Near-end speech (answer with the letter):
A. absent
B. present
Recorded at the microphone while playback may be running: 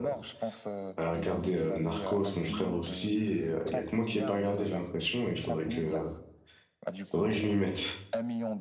B